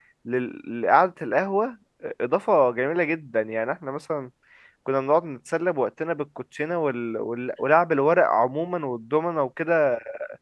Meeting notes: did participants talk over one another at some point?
No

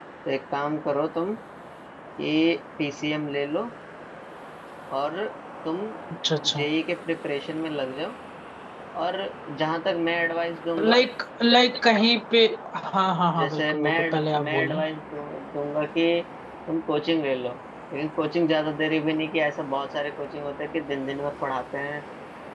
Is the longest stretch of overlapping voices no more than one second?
No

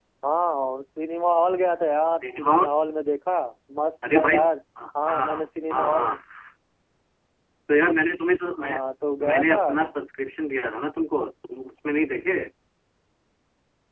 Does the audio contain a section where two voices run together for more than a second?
No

